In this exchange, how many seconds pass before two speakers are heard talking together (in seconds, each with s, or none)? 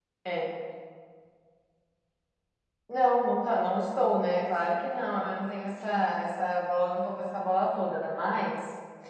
none